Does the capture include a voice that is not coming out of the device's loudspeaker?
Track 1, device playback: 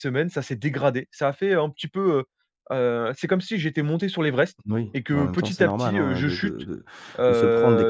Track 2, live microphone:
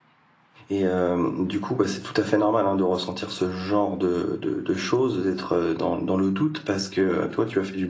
Yes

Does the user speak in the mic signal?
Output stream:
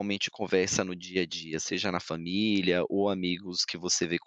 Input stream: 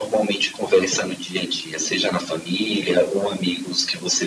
No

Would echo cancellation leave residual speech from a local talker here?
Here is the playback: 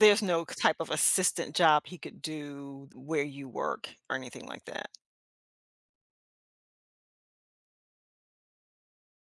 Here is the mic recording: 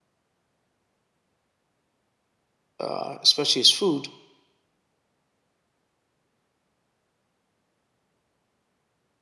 Yes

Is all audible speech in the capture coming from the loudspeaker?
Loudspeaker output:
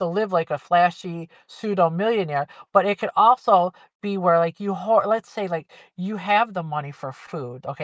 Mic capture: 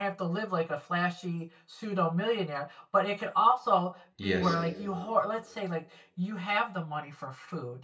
No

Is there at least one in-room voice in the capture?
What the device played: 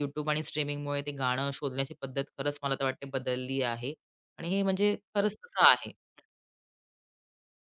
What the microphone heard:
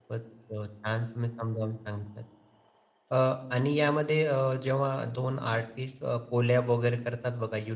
Yes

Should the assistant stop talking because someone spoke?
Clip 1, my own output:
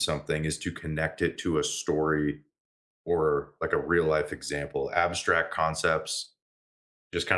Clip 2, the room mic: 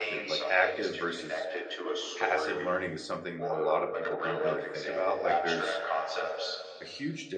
Yes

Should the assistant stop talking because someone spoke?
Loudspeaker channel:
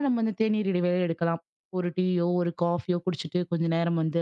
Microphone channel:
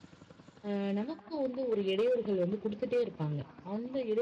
Yes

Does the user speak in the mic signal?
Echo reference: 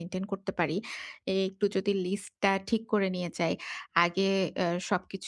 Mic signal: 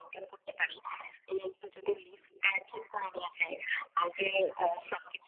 No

